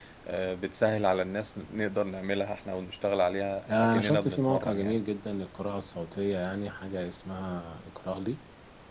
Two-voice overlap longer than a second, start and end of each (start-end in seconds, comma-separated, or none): 3.7-5.0